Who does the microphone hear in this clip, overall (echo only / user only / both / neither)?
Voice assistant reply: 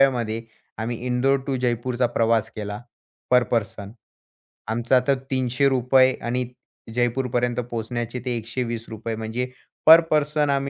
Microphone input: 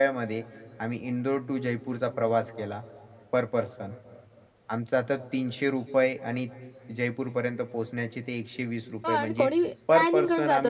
both